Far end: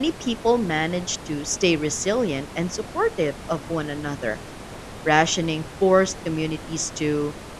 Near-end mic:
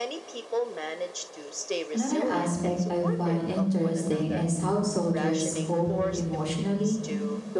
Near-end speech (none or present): present